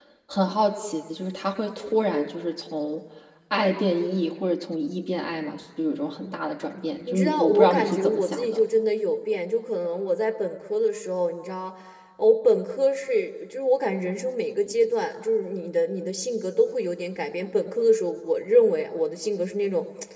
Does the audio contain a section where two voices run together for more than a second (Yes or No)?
Yes